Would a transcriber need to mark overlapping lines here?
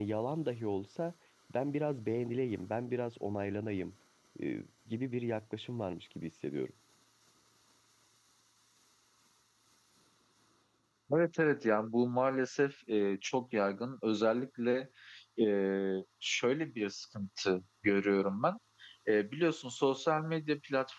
No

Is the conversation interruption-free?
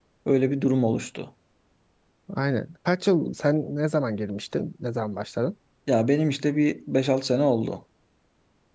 Yes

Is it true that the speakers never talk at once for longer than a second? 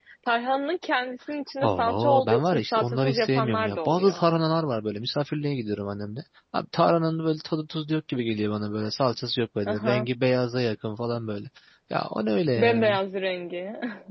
No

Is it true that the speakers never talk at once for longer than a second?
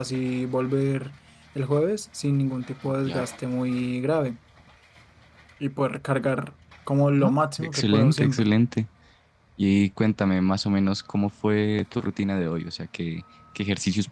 No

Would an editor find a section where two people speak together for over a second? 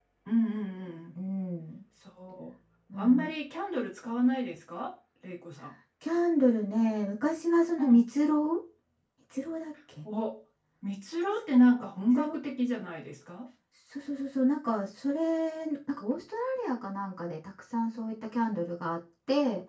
No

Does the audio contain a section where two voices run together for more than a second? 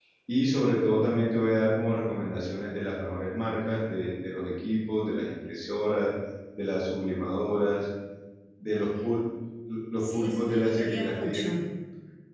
Yes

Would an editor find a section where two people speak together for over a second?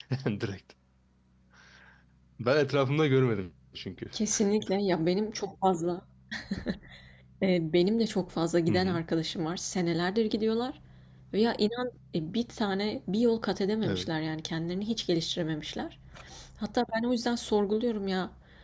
No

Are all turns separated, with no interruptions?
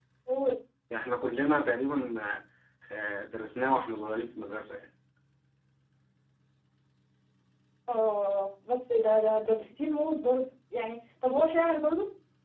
Yes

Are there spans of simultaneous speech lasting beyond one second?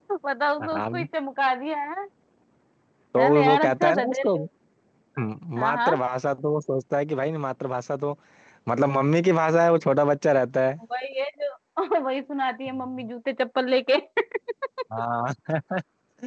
Yes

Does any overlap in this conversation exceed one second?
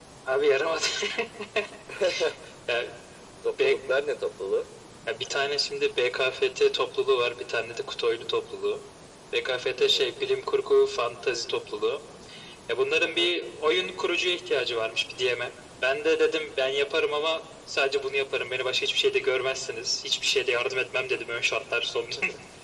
No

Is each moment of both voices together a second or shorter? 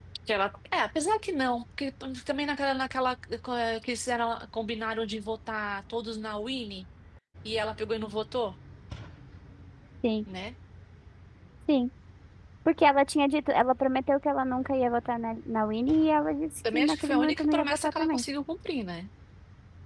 No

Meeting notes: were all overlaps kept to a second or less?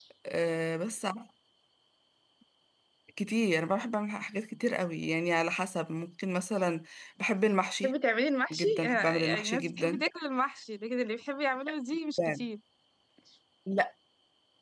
No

